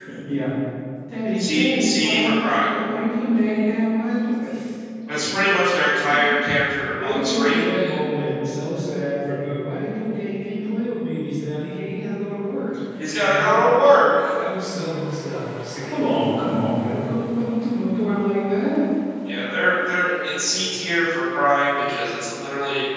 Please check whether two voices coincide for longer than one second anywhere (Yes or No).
Yes